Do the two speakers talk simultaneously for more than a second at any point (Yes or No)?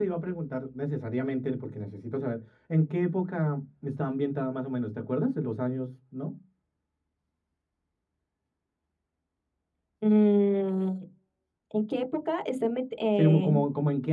No